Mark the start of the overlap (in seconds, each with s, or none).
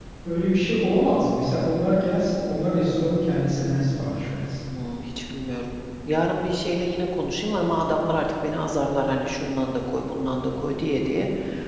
none